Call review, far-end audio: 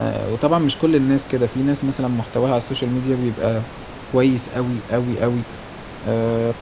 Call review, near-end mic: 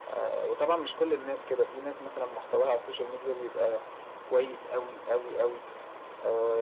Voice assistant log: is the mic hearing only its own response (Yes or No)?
Yes